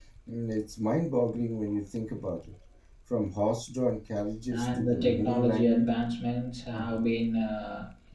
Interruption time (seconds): 4.5 s

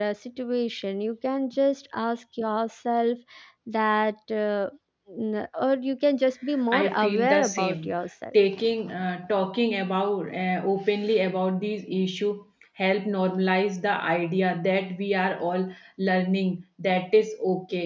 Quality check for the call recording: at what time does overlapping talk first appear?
6.7 s

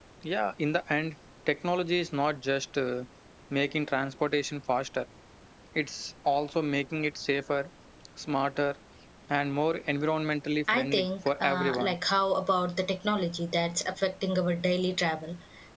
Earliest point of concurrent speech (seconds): 10.7 s

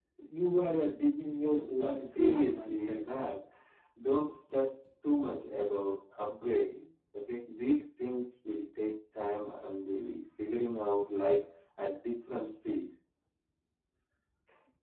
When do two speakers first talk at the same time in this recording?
1.6 s

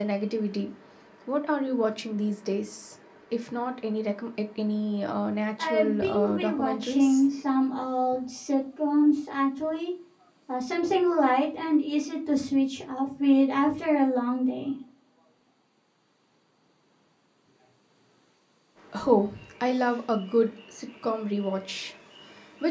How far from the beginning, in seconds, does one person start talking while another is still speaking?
5.6 s

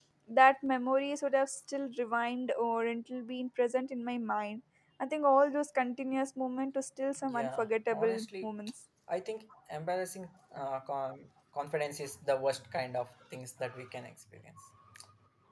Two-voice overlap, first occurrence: 7.2 s

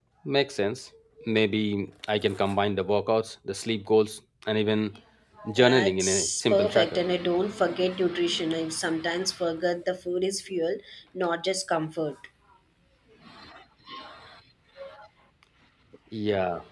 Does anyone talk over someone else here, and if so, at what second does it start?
5.5 s

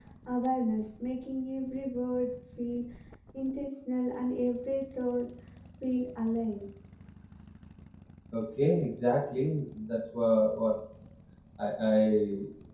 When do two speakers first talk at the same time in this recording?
none

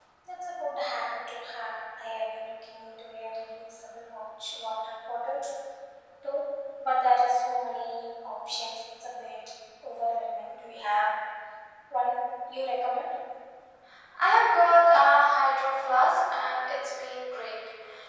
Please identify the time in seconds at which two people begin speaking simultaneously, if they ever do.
none

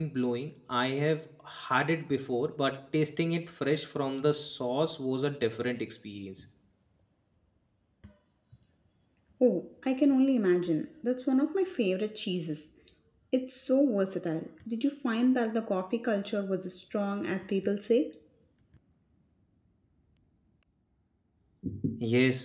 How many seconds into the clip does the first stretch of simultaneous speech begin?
none

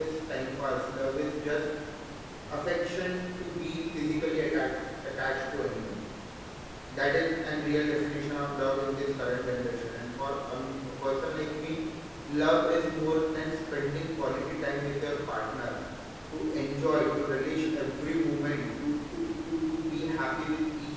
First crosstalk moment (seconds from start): none

